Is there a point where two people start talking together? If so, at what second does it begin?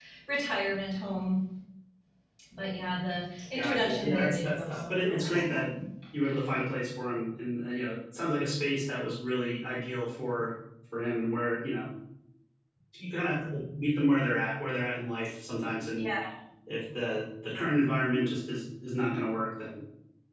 3.5 s

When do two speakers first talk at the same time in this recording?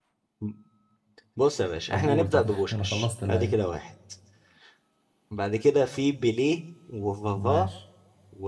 1.9 s

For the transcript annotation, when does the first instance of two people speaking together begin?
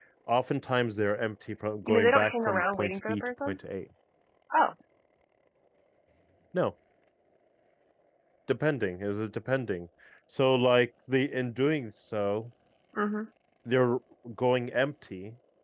1.8 s

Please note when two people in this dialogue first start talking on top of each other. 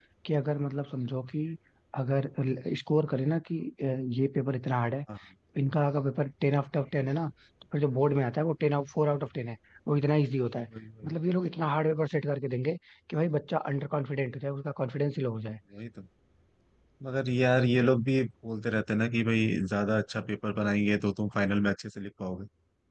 none

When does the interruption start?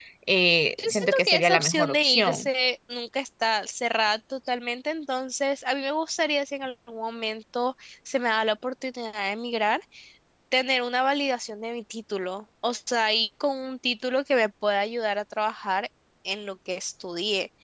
0.8 s

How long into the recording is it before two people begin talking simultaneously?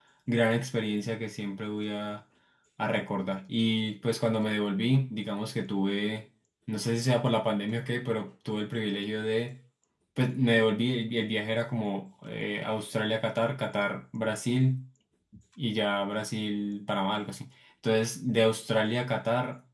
none

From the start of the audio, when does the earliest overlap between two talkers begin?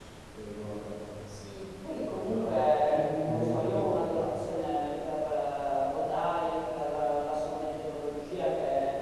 2.1 s

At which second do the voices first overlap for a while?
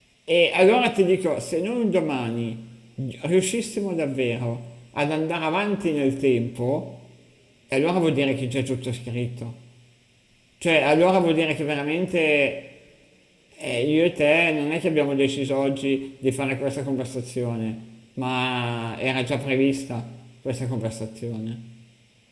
none

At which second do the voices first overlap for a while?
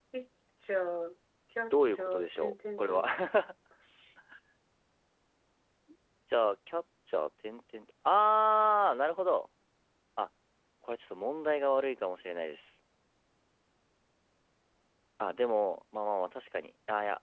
1.7 s

